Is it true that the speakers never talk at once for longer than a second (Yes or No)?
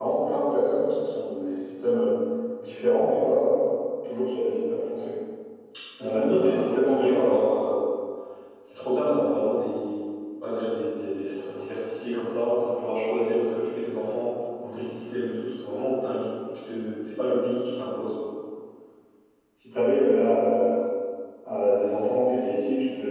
No